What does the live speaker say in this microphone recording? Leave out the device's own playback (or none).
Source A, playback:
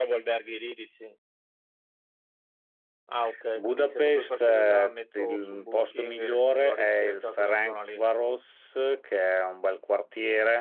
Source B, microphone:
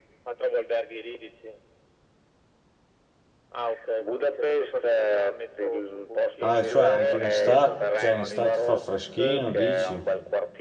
ah, cioè anche in estate, cioè in estate fa freschino, dici?